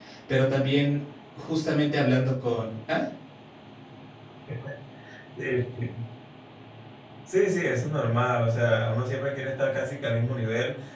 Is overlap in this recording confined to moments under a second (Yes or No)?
Yes